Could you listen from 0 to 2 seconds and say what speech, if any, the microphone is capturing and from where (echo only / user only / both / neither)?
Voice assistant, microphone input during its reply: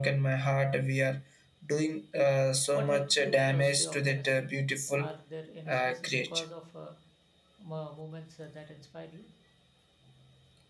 echo only